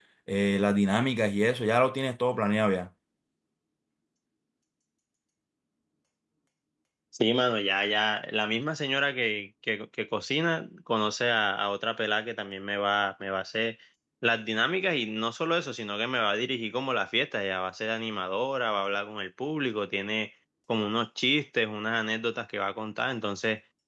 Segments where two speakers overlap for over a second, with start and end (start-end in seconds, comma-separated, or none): none